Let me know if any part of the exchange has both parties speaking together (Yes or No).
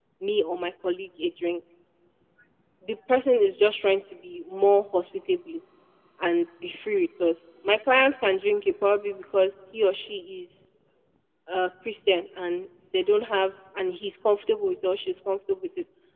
No